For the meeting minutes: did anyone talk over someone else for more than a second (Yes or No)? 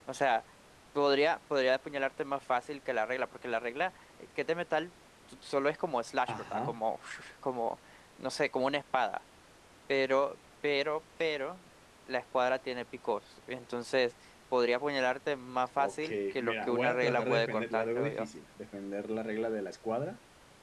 Yes